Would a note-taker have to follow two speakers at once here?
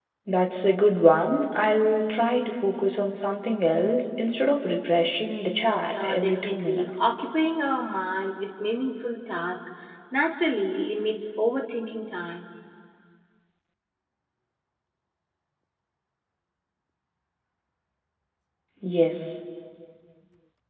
Yes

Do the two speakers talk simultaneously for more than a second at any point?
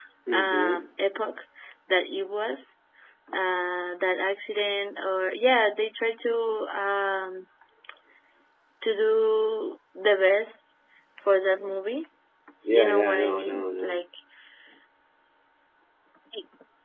Yes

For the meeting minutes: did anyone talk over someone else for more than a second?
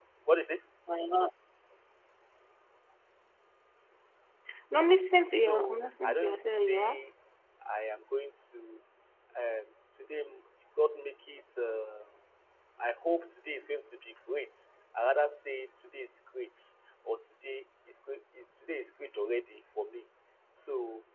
Yes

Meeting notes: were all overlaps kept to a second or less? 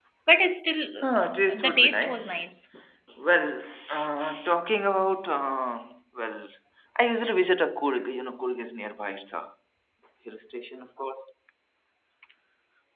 No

